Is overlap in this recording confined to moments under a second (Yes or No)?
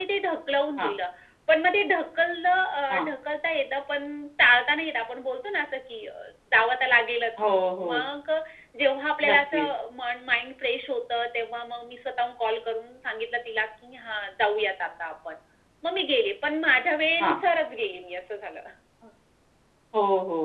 Yes